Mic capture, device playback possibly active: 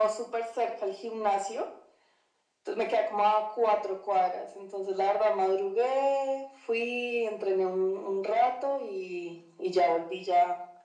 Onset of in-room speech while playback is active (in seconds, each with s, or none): none